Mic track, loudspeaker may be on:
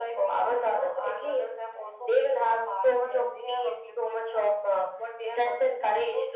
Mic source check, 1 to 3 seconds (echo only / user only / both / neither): echo only